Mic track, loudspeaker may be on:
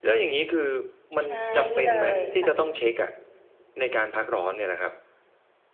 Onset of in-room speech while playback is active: 1.2 s

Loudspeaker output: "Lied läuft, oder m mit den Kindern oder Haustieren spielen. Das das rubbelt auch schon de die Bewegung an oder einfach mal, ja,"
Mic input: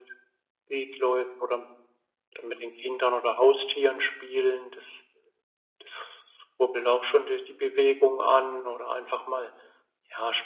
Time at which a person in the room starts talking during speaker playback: none

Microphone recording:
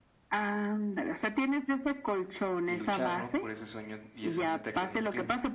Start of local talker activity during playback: 2.7 s

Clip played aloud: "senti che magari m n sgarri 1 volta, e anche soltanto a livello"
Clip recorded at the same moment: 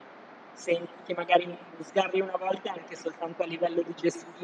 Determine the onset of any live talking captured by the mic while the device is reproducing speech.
none

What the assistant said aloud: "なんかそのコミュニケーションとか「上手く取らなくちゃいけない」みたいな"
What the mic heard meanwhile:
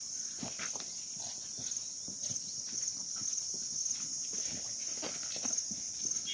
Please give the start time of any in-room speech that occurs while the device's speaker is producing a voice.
none

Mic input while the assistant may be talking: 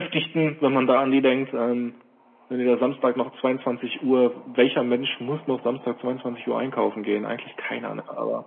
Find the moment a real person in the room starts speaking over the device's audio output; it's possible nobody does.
none

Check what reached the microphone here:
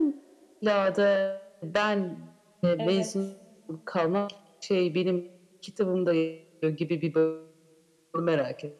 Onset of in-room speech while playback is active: 2.8 s

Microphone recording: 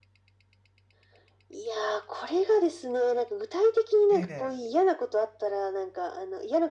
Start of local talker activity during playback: 4.1 s

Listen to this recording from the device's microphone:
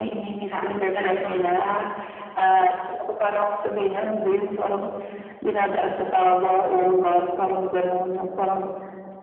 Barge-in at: 0.4 s

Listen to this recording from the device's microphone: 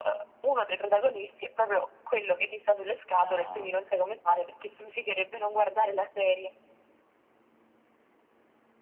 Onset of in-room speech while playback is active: 3.2 s

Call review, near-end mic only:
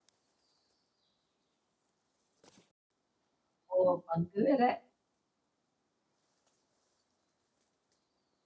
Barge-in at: 3.8 s

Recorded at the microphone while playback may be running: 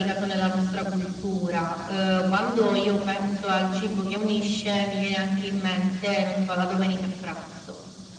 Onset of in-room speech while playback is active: none

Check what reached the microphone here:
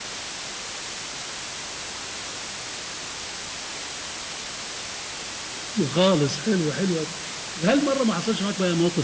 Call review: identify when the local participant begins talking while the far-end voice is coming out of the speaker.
5.8 s

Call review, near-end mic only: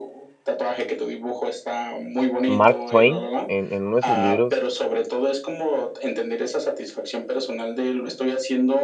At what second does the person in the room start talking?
2.5 s

